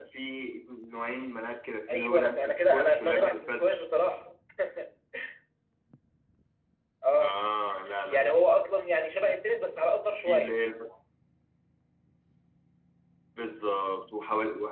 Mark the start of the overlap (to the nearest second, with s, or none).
2 s